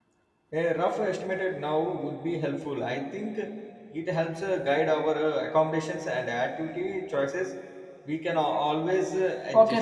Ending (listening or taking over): taking over